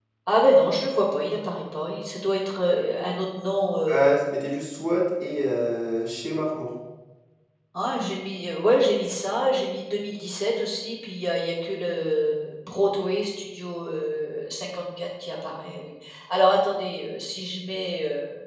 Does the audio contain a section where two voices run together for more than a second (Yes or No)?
No